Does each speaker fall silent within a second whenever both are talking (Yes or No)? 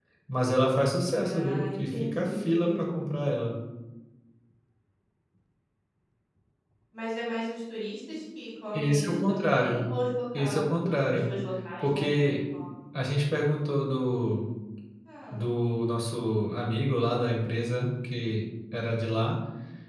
No